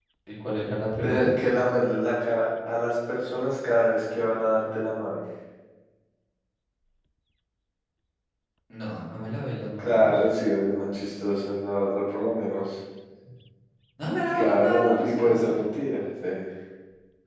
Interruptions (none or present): present